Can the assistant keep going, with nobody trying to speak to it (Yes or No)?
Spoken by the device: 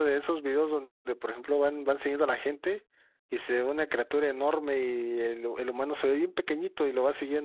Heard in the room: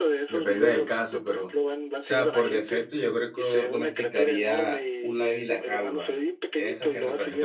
No